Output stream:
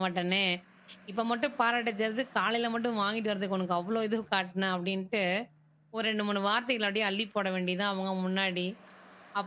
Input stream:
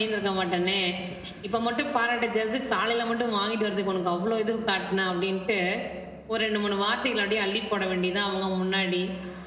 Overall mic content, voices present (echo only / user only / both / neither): echo only